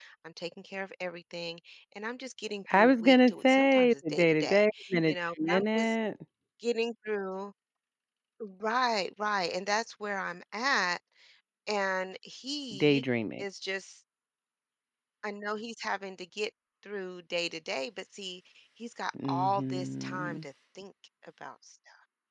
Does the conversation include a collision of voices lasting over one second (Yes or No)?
Yes